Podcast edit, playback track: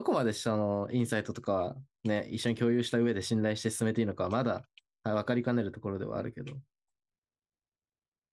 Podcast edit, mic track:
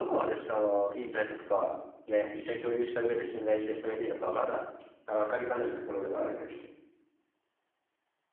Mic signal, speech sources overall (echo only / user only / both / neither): echo only